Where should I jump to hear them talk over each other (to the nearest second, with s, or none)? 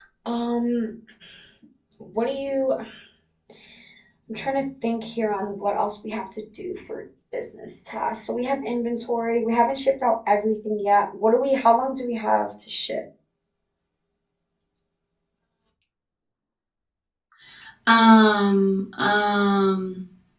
none